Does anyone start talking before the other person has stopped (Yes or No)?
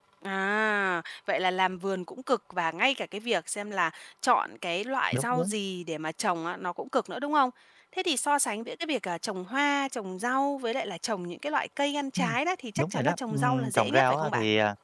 Yes